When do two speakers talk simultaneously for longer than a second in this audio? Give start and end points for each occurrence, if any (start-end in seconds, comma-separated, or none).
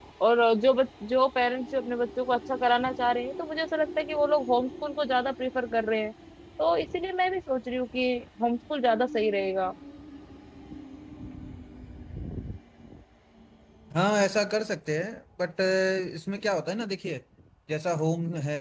none